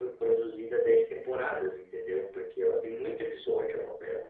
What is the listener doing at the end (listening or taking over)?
taking over